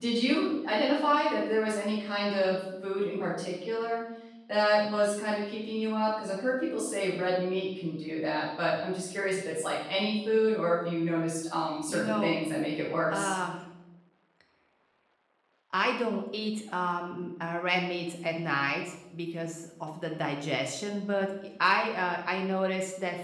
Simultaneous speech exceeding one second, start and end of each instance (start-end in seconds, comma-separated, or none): none